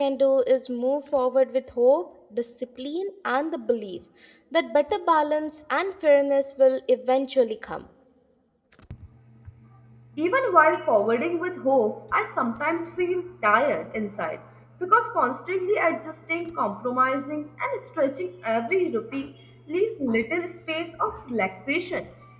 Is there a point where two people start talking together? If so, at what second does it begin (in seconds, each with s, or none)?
none